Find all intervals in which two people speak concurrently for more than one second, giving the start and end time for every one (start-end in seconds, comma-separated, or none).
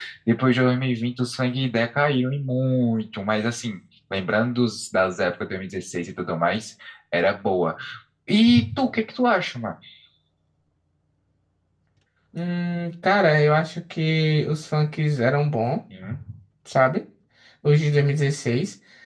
none